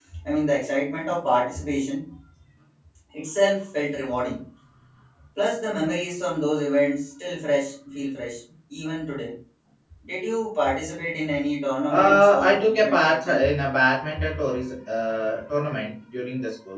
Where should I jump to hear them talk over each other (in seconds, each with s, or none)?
11.9 s